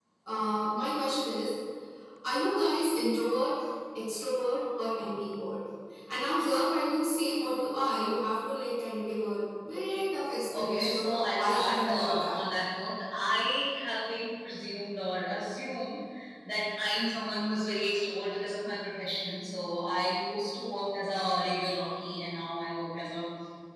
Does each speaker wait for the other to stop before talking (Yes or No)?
No